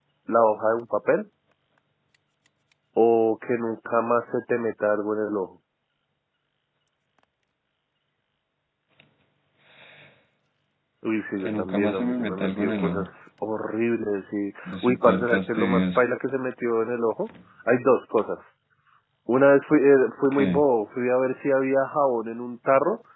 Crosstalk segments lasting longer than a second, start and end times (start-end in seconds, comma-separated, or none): 11.4-13.0, 14.7-16.0